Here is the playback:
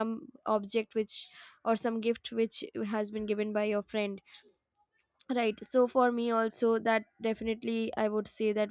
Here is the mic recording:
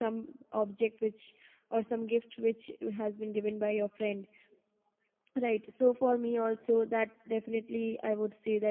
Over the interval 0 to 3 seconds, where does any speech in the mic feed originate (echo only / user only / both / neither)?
echo only